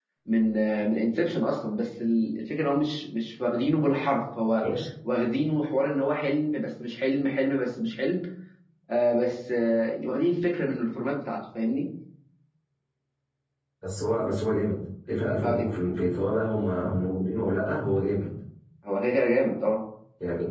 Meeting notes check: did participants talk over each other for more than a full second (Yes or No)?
No